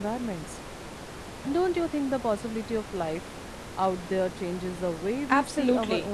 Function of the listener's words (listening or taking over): taking over